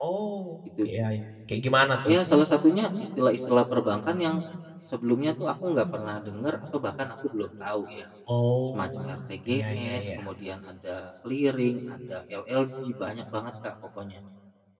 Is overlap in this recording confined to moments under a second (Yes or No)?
No